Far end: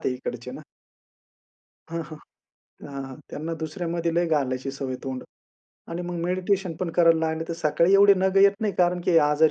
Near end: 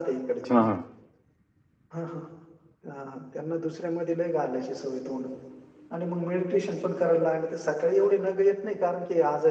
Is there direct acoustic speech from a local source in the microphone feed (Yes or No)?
Yes